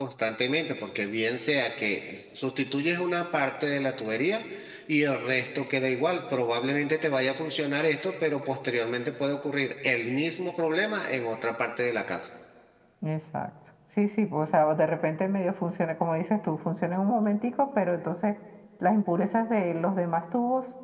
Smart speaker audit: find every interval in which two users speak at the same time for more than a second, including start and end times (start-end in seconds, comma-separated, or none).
none